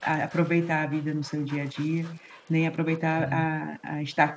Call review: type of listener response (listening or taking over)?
listening